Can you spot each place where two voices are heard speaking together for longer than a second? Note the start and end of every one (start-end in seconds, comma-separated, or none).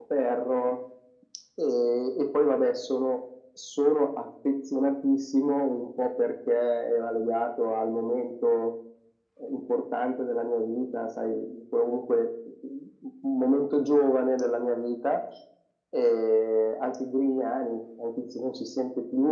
none